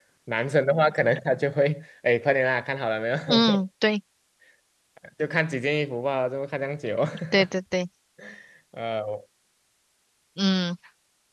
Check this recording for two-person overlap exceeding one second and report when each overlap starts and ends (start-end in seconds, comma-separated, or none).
none